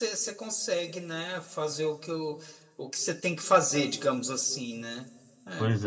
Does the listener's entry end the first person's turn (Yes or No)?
Yes